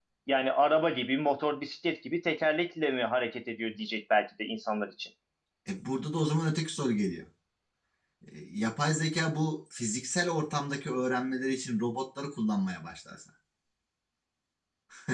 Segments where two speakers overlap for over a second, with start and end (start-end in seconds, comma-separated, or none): none